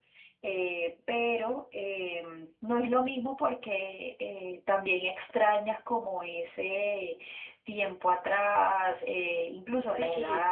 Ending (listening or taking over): taking over